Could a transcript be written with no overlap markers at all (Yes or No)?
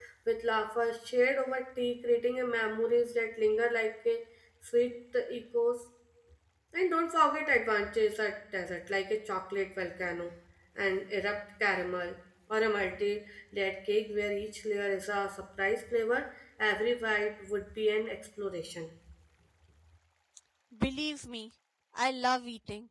Yes